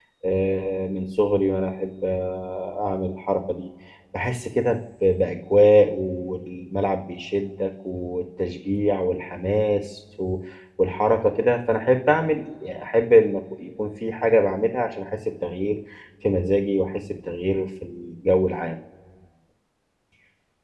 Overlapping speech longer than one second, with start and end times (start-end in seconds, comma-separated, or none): none